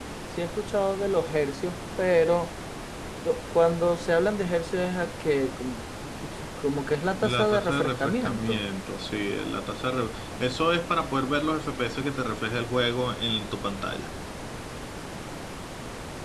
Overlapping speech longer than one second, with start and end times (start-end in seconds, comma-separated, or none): 7.2-8.6